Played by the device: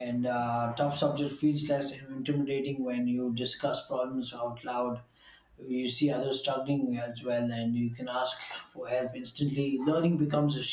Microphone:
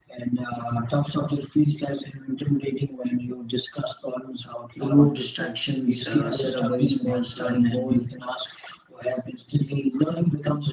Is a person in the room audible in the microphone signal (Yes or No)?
Yes